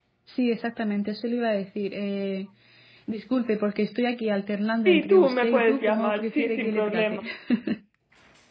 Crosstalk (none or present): present